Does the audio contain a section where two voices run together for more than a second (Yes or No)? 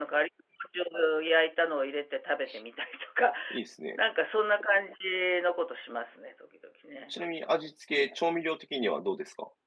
No